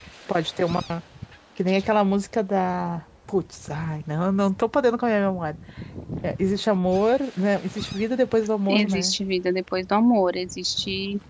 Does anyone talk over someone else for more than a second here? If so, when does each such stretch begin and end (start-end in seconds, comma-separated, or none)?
none